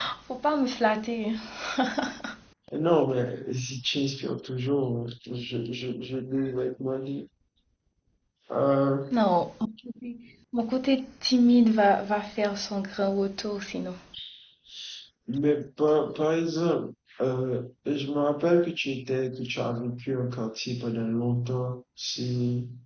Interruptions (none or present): none